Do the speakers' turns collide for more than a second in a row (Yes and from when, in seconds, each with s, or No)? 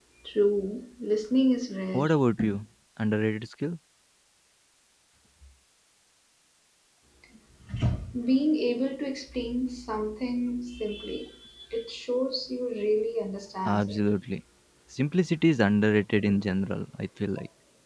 No